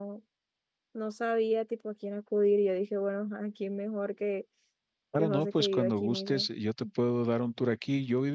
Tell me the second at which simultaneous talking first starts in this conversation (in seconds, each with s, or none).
5.2 s